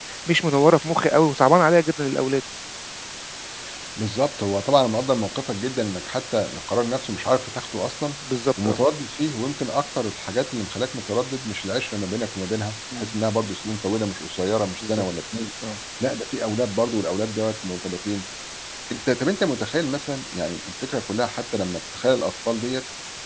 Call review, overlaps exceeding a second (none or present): none